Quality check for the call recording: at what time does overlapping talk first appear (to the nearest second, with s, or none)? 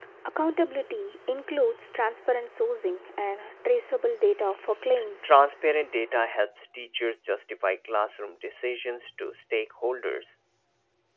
none